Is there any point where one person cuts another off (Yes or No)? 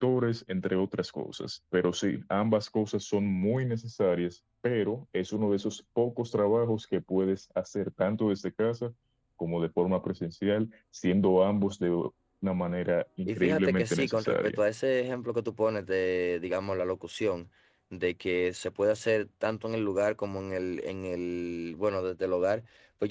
Yes